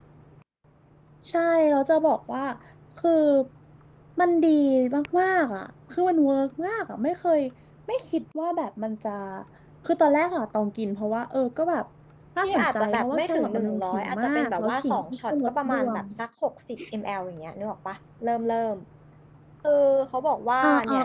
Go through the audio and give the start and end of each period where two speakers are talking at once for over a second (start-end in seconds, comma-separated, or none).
12.4-16.0